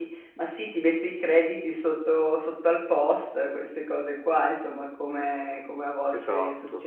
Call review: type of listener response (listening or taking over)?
listening